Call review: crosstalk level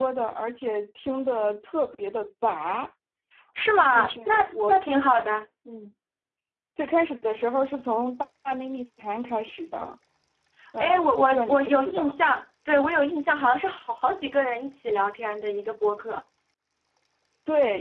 present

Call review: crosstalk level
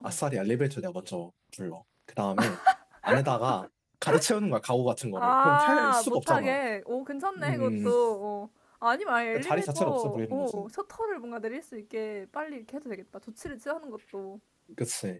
present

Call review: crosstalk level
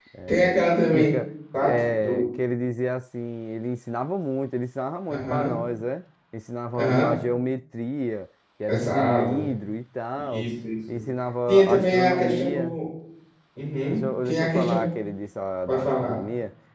present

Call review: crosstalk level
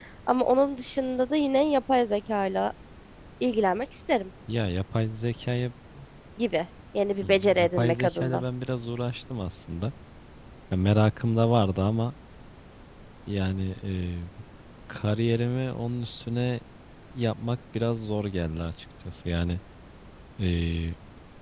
present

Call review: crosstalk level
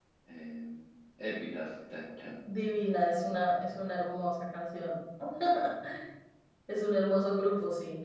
none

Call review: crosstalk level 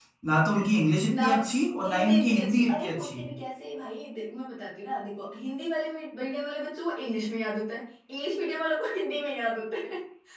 present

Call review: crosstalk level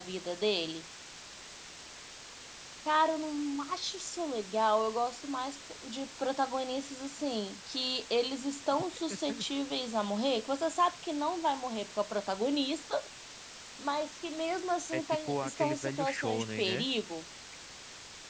present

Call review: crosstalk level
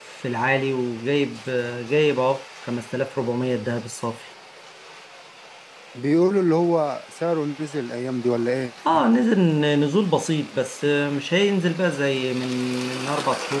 none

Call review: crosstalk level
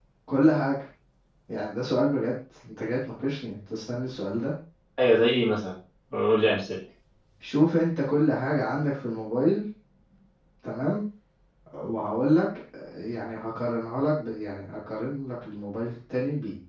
none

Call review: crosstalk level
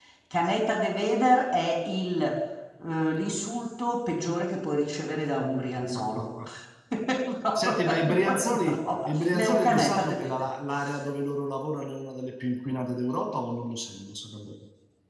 present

